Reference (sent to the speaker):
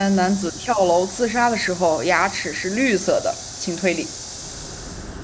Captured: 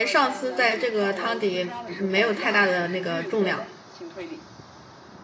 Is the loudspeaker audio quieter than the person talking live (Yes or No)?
Yes